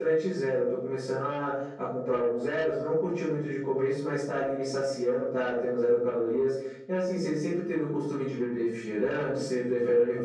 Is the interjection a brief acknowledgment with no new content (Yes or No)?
No